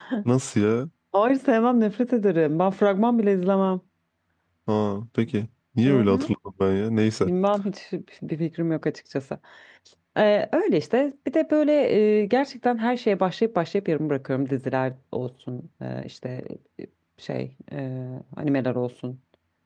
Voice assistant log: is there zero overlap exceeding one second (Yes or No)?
Yes